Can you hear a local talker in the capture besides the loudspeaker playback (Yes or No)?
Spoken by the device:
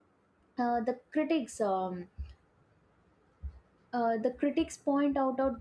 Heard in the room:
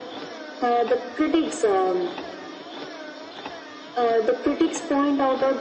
No